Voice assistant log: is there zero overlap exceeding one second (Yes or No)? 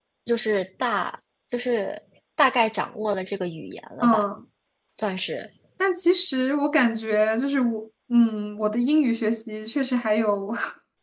Yes